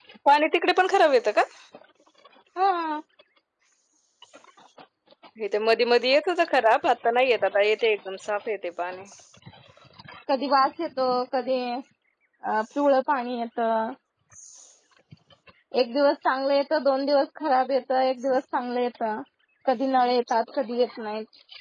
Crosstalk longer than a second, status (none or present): none